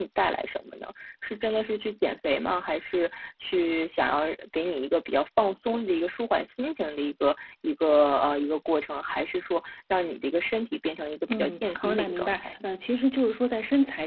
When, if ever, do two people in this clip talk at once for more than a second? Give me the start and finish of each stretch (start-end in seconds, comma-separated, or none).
11.3-12.5